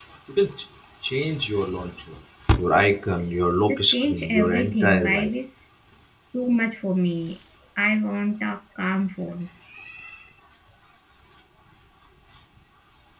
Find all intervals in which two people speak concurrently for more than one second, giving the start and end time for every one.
3.7-5.3

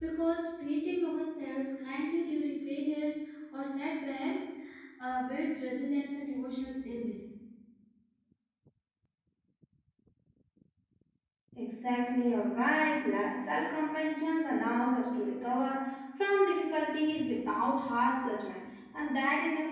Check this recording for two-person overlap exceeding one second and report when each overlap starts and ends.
none

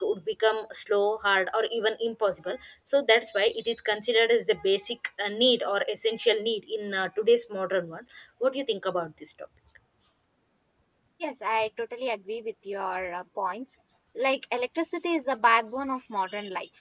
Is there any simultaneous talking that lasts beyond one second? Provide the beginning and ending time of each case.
none

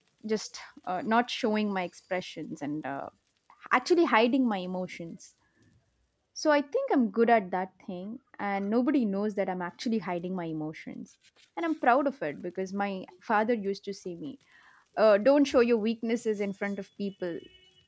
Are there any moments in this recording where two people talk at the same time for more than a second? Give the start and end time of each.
none

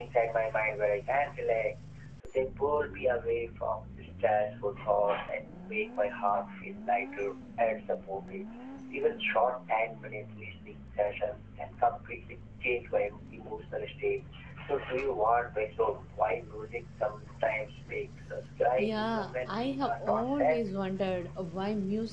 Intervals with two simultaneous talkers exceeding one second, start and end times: 18.8-20.6

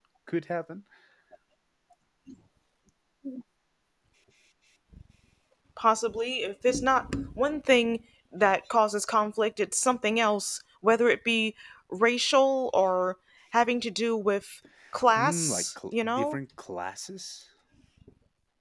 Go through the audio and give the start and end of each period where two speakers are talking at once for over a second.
15.2-16.4

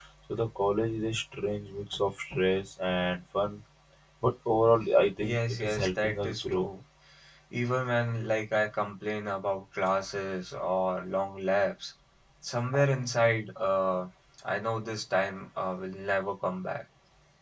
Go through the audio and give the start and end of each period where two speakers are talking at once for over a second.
5.2-6.7

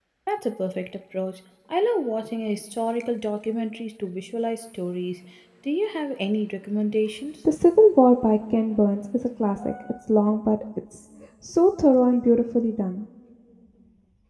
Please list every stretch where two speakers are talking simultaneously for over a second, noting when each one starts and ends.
none

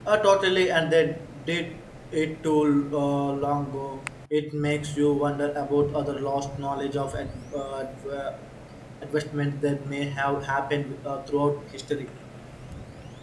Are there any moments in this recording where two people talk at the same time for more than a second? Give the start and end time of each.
none

